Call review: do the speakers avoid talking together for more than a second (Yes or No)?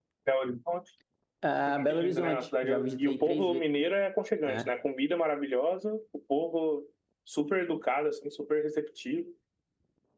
No